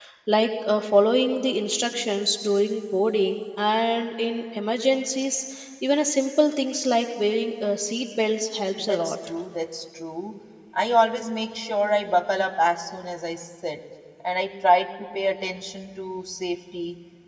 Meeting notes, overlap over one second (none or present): none